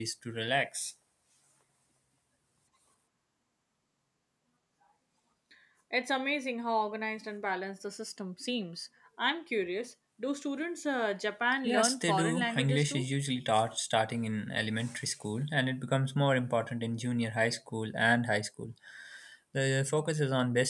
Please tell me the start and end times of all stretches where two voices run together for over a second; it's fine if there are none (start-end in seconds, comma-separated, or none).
11.6-13.0